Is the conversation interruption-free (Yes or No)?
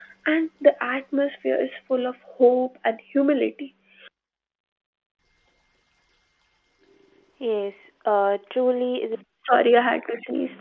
Yes